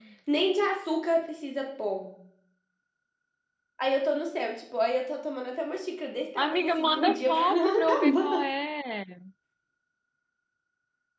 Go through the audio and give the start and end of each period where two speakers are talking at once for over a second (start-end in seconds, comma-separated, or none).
6.4-8.4